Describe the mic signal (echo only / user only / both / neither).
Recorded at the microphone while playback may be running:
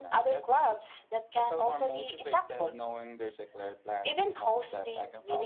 echo only